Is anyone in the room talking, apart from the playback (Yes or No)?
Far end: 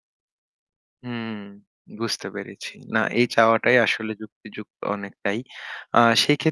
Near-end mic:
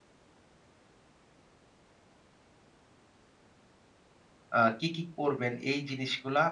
Yes